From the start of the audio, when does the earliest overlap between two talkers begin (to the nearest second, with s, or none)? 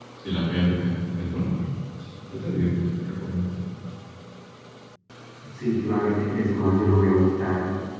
none